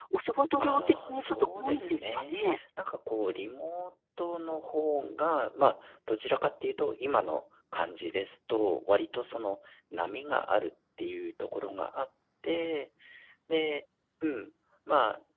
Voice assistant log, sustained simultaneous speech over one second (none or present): present